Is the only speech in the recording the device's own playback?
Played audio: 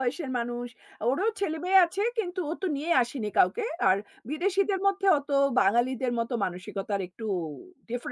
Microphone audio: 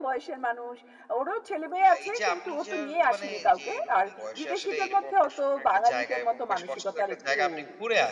No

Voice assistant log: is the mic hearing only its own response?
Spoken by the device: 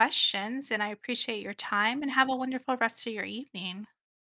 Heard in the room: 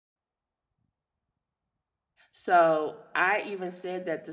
No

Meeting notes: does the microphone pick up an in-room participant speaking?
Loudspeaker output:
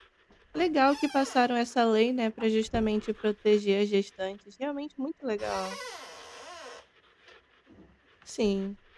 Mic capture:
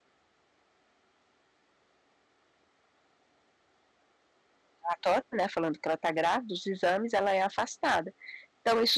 Yes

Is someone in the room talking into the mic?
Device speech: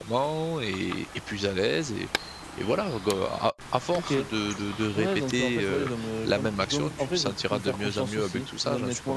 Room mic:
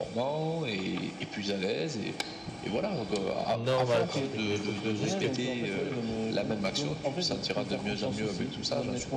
Yes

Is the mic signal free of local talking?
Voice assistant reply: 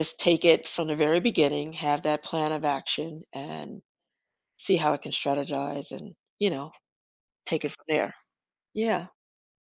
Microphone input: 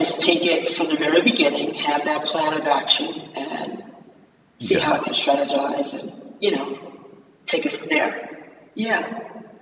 No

